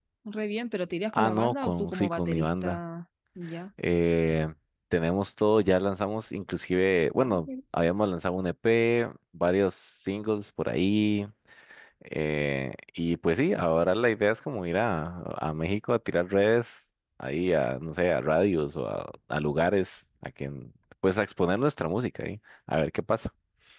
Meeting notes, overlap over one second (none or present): present